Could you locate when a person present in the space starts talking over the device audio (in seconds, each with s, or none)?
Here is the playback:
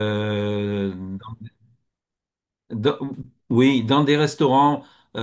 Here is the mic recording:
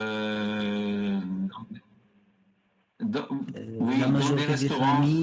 3.6 s